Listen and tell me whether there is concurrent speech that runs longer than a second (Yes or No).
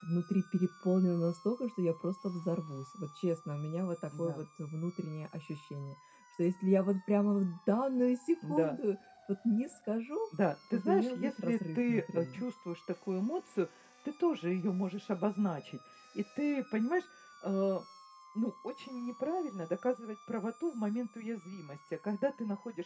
Yes